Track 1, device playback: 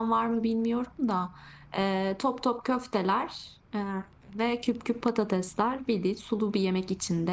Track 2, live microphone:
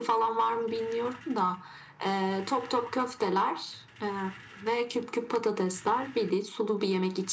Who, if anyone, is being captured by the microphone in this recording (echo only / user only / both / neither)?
echo only